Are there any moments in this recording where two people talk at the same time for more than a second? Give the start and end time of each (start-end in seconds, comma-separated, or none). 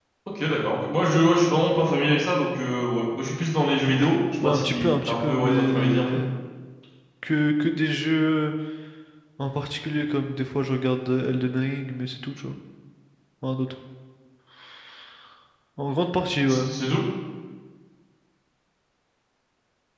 4.4-6.2